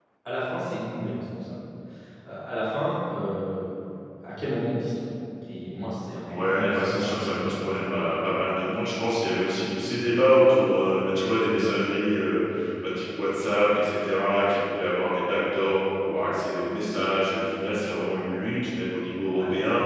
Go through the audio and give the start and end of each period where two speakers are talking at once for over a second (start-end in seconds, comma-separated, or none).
6.3-8.0